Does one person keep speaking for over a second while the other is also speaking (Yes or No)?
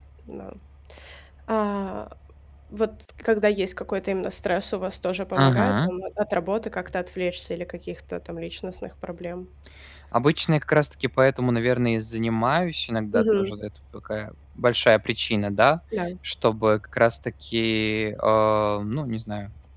No